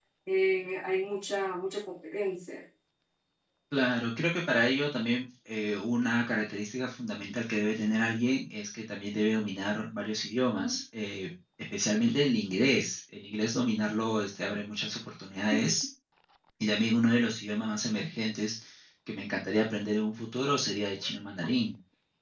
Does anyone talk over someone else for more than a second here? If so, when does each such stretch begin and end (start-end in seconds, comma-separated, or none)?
none